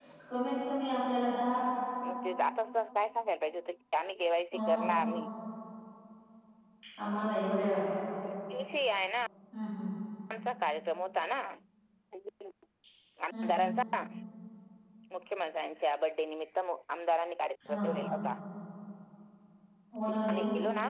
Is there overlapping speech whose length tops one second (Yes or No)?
No